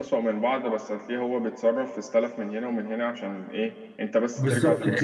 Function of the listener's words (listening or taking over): taking over